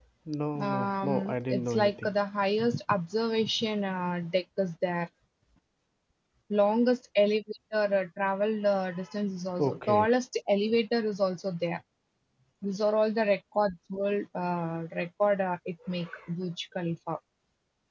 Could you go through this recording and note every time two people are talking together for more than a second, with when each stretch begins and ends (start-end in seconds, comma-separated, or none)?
0.6-2.1